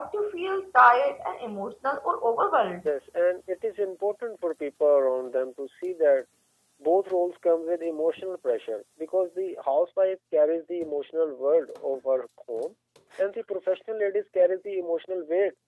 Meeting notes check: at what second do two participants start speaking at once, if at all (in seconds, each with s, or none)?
none